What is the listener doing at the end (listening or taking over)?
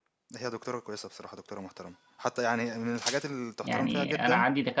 taking over